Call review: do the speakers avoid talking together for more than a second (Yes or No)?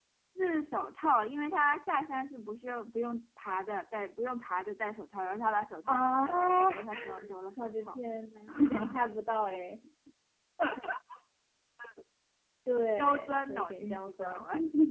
No